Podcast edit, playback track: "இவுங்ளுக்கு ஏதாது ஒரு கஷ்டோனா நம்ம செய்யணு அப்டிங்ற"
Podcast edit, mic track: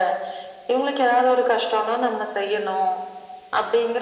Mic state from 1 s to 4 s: echo only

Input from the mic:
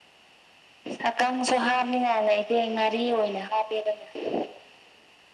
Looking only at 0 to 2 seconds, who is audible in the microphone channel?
echo only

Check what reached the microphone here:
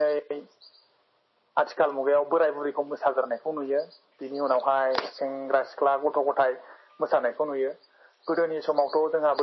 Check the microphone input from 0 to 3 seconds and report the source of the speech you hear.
echo only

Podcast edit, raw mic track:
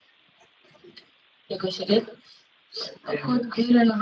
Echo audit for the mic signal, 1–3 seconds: echo only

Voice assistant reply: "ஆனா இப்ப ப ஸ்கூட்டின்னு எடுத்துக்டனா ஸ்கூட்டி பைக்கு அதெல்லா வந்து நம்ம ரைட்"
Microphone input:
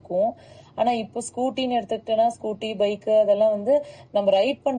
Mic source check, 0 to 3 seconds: echo only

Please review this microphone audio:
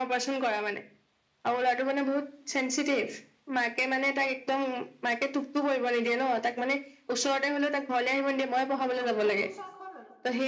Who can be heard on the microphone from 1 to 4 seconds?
echo only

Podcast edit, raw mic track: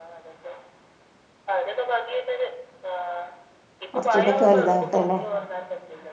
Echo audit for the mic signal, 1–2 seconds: echo only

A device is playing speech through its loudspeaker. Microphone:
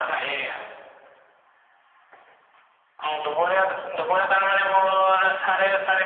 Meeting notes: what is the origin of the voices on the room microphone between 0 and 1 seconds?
echo only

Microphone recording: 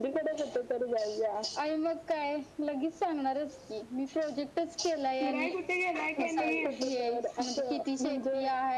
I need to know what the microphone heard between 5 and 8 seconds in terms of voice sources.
both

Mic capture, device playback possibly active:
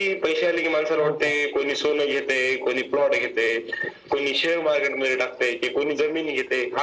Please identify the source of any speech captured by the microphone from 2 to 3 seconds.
echo only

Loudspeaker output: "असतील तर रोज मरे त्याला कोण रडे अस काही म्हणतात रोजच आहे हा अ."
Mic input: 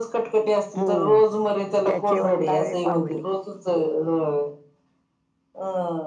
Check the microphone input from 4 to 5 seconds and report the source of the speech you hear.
echo only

